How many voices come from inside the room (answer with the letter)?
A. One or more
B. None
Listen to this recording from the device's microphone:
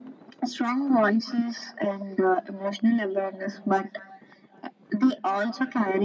B